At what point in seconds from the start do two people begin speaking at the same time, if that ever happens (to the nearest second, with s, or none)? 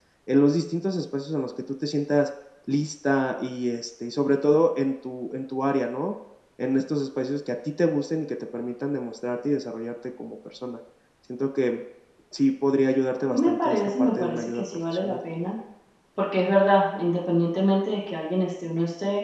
13 s